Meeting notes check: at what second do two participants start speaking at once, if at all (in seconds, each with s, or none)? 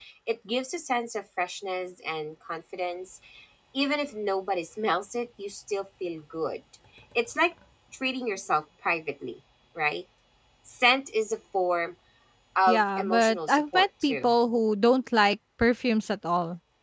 12.7 s